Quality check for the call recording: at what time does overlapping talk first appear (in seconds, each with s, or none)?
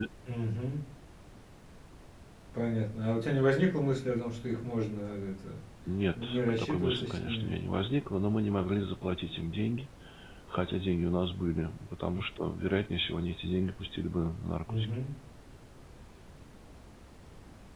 6.2 s